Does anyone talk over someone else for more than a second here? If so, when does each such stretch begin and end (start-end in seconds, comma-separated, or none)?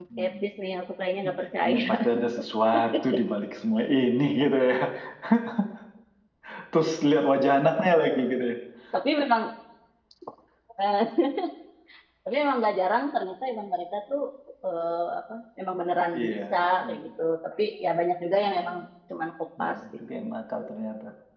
none